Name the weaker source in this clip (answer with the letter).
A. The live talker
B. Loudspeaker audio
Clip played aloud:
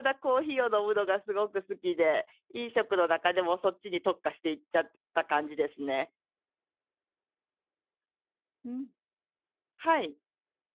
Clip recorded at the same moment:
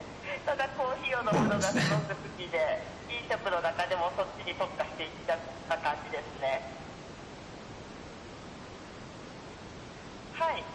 B